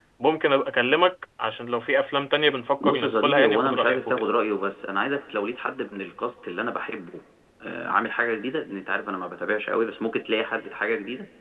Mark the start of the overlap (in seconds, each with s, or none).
2.8 s